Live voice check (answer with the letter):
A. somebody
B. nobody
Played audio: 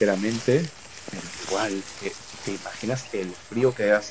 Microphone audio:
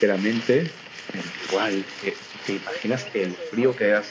A